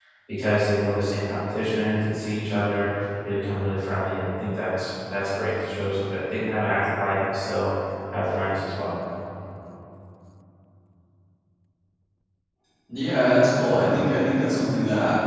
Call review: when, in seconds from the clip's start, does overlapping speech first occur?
none

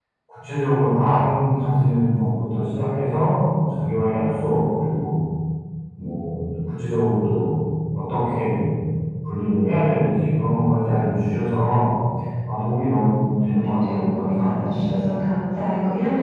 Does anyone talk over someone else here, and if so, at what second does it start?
13.2 s

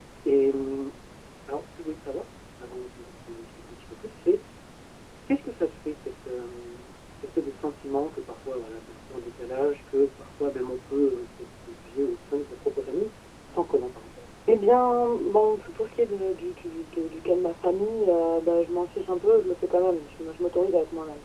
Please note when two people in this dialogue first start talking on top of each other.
none

